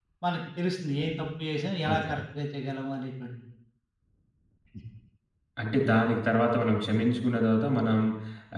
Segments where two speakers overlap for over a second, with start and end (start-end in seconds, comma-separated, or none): none